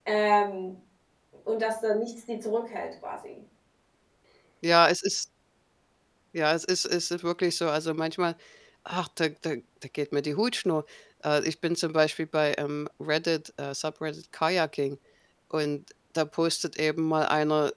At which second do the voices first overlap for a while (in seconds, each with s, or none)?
none